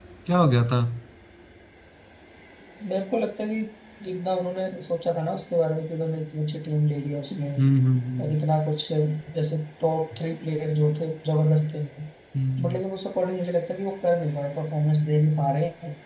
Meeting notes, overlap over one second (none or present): none